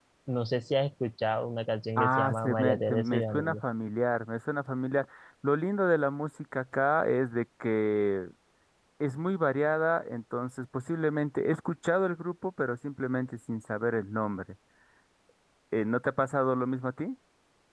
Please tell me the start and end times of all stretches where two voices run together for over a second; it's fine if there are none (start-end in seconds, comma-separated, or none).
2.0-3.6